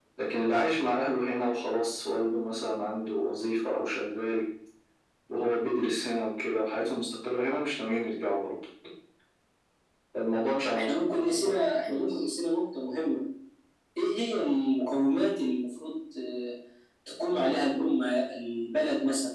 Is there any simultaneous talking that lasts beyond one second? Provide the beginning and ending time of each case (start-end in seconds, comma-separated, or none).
10.8-12.2